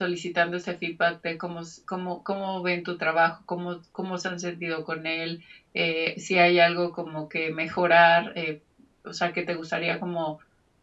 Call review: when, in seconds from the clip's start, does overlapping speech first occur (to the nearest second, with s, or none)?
none